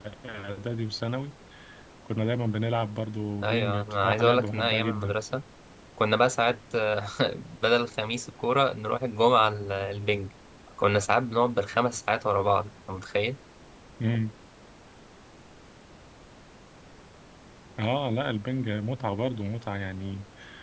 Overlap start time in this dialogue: 3.4 s

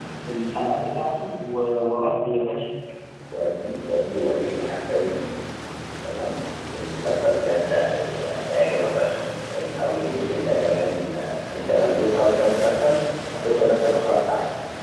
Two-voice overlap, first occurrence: none

